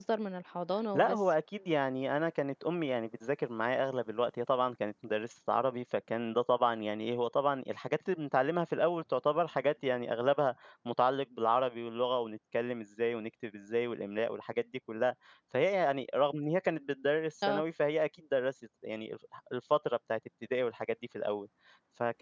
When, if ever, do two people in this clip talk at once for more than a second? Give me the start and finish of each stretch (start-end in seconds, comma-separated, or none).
none